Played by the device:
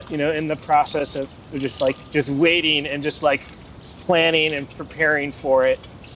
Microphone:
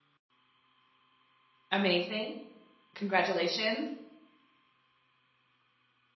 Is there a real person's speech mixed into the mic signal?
Yes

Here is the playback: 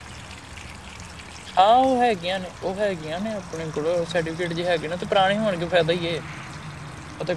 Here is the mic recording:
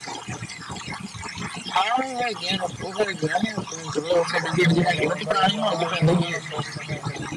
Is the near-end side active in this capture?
Yes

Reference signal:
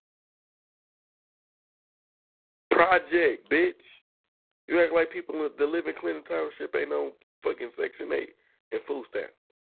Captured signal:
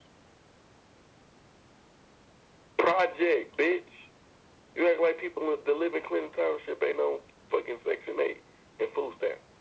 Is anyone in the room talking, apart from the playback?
No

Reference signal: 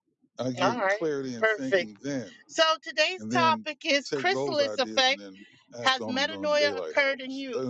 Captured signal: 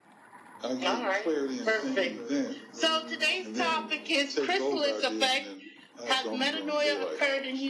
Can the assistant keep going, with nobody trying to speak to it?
No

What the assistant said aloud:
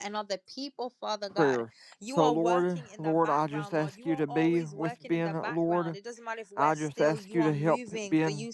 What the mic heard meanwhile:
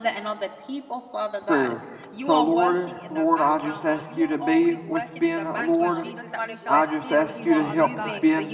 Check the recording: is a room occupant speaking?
Yes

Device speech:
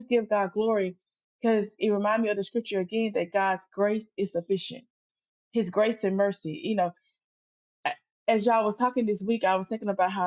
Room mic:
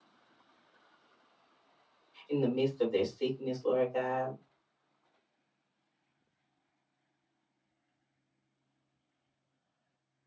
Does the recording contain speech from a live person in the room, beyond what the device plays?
Yes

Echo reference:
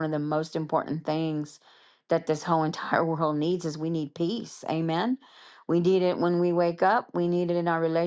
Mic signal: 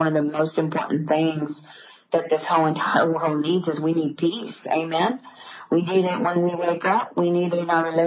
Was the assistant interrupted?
No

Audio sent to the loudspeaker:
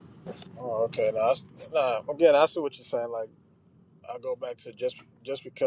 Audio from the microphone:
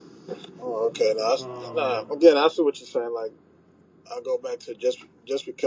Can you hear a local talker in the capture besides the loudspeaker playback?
Yes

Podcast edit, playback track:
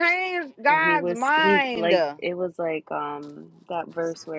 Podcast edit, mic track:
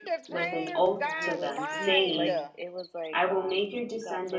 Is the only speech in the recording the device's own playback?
No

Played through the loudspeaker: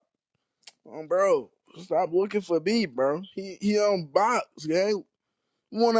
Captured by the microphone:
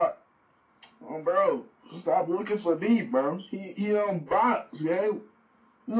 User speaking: No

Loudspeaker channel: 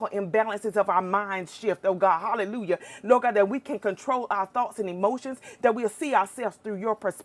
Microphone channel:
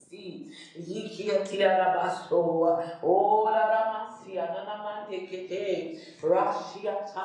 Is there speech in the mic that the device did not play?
Yes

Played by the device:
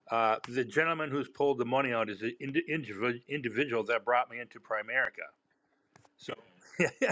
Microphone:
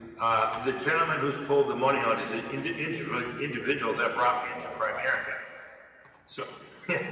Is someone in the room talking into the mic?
Yes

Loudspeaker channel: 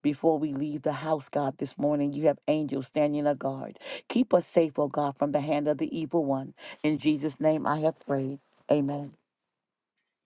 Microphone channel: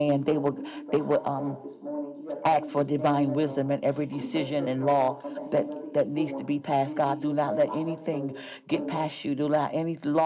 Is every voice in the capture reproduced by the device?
No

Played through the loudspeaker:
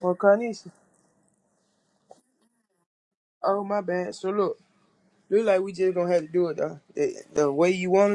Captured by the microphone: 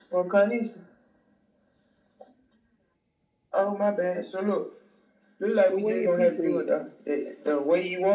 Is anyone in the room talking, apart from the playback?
Yes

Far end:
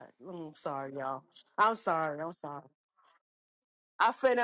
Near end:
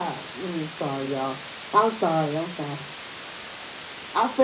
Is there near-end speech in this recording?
No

